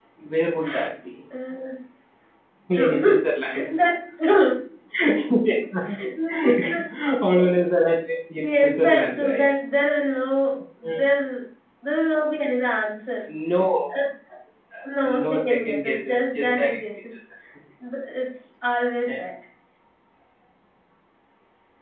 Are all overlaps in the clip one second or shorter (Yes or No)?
No